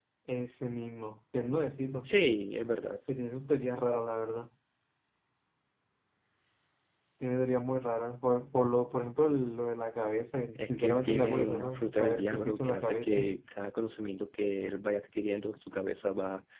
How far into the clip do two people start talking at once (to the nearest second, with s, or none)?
11 s